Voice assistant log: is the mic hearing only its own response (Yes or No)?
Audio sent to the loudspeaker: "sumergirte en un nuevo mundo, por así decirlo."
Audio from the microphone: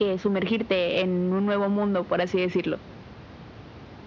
Yes